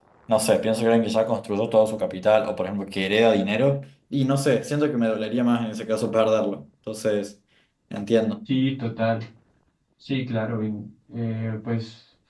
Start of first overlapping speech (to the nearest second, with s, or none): none